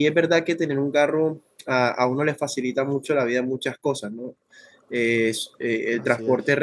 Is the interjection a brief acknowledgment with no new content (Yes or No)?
Yes